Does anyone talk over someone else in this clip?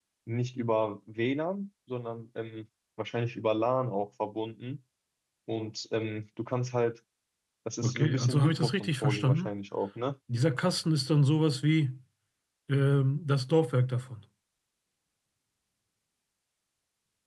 Yes, from 7.8 s

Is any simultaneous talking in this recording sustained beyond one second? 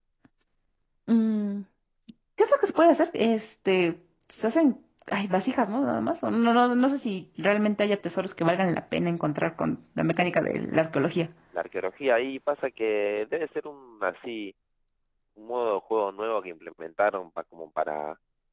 No

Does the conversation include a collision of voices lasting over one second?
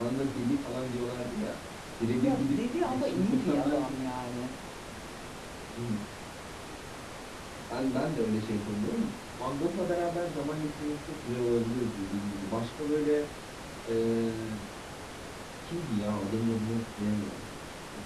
Yes, from 2.2 s

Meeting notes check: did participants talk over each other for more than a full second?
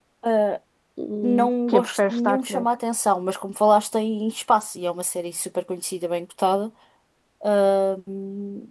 Yes, from 1.2 s

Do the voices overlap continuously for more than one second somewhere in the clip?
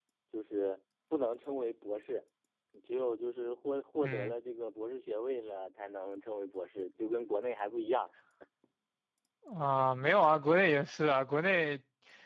No

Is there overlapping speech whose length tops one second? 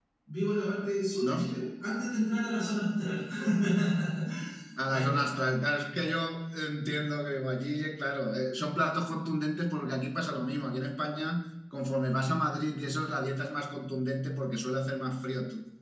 No

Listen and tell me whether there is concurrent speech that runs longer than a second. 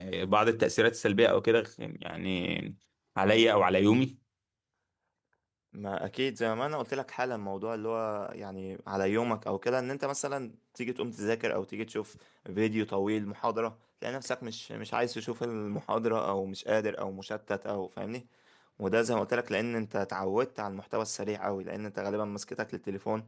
No

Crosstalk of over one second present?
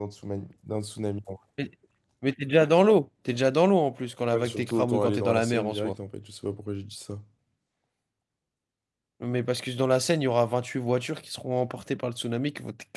Yes, from 4.3 s

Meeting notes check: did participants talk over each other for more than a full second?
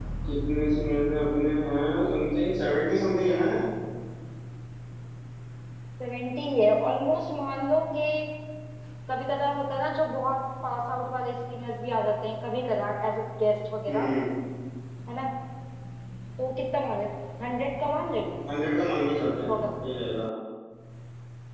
No

